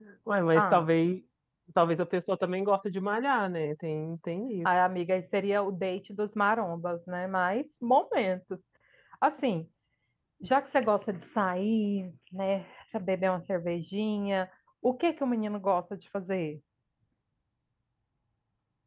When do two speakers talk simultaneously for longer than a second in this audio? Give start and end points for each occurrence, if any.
none

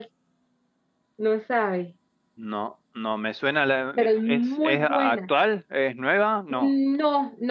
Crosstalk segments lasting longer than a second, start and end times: 4.0-5.2

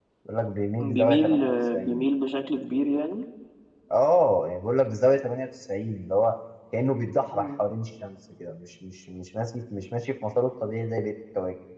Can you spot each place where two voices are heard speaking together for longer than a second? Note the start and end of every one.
0.8-2.0

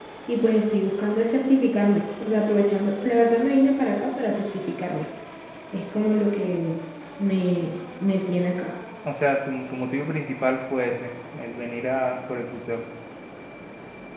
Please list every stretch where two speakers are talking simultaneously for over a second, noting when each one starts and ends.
none

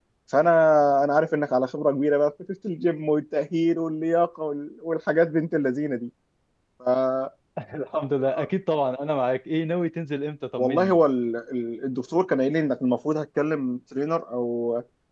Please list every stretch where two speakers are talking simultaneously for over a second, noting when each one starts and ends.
none

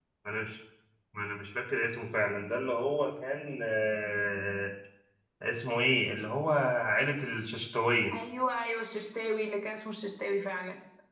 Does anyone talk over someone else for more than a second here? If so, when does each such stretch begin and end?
none

